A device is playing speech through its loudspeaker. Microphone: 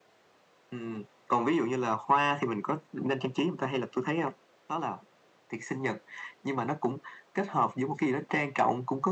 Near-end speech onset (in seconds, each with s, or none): none